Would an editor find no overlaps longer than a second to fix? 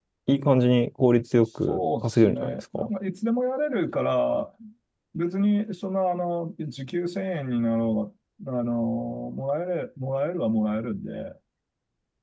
No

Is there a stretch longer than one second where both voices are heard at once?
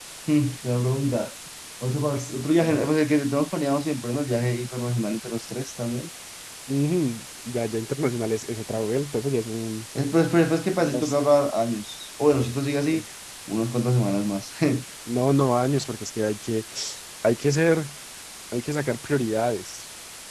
No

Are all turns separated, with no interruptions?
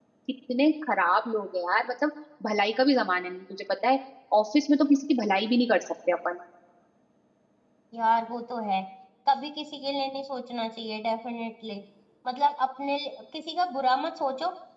Yes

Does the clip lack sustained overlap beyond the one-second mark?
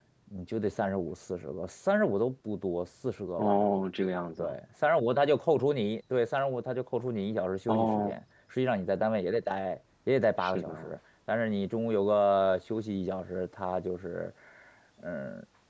Yes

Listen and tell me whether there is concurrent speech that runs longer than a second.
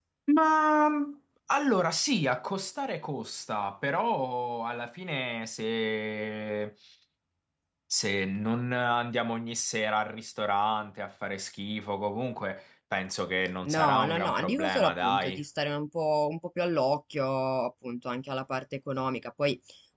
Yes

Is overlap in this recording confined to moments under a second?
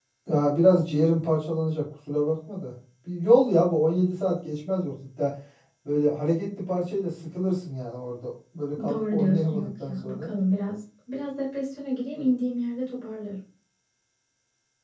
No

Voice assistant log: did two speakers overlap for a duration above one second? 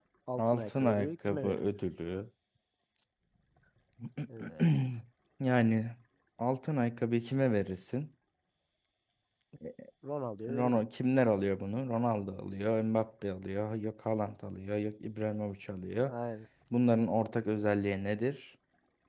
Yes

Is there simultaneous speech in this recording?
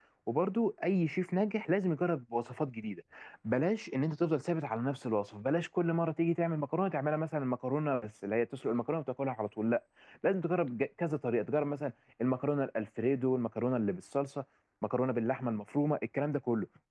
No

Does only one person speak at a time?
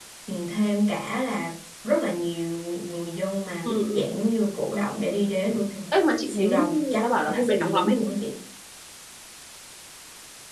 No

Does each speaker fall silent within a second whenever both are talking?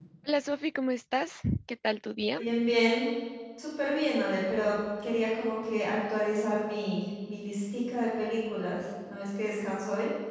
Yes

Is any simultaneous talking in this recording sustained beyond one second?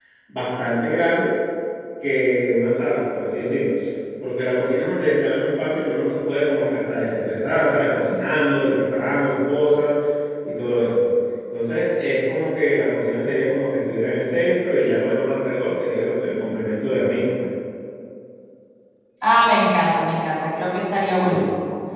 No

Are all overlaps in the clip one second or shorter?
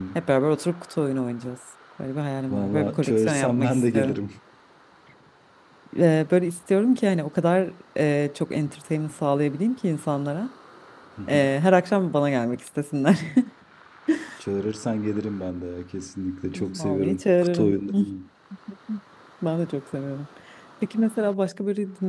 No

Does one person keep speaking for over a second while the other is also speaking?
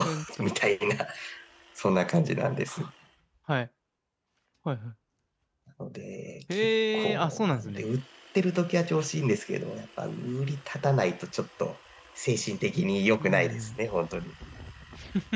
Yes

